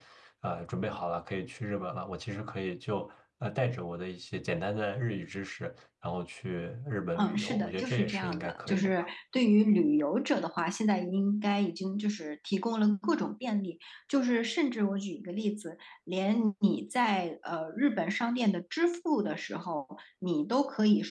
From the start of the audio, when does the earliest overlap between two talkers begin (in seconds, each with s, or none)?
7.2 s